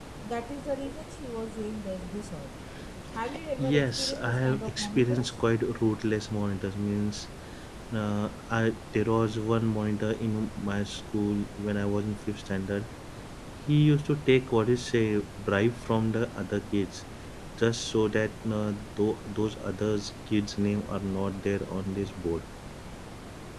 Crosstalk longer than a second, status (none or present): present